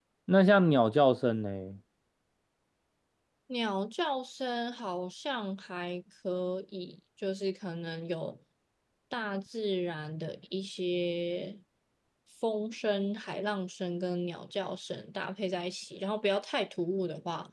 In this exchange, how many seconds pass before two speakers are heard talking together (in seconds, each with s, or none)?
none